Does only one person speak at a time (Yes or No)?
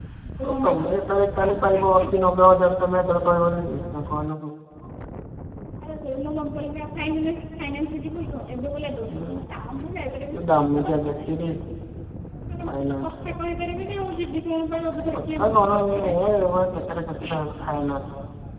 No